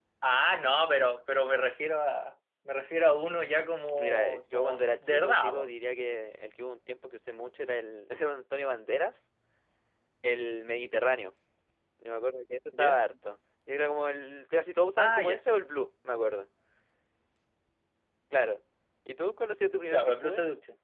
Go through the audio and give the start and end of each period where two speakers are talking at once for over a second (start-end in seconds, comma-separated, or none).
4.0-5.7